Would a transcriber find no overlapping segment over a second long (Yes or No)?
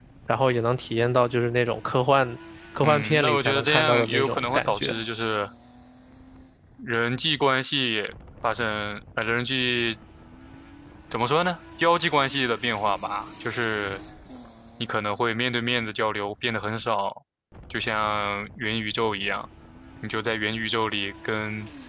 No